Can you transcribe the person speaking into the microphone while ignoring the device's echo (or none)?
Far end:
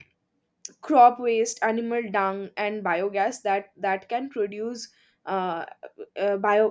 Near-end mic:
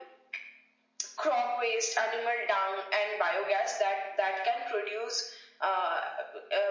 none